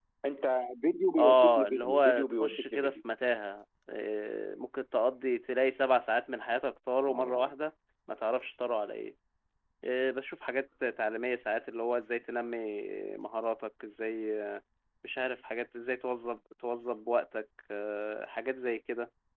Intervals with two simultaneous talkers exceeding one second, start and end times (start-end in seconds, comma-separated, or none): 1.2-2.9